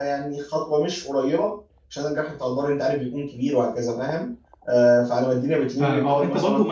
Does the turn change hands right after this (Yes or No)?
Yes